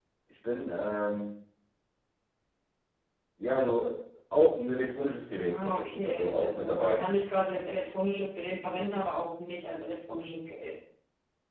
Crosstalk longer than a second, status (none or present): present